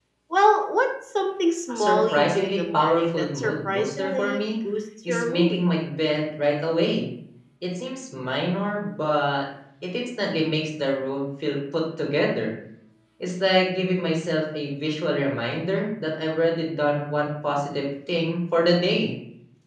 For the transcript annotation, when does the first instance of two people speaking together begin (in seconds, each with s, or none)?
1.7 s